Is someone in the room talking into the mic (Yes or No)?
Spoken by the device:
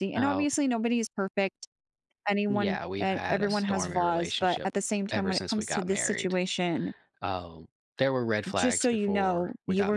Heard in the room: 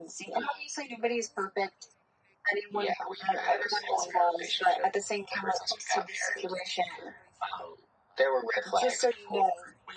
No